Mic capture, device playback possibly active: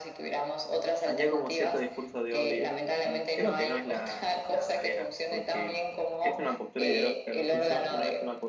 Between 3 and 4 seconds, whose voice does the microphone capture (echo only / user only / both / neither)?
both